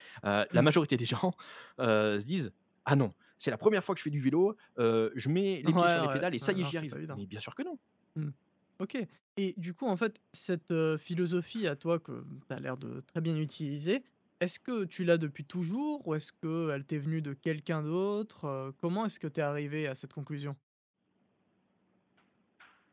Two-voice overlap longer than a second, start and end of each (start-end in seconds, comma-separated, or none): 5.7-7.2